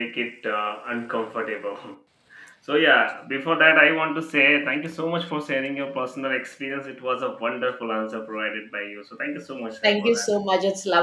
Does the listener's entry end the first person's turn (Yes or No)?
Yes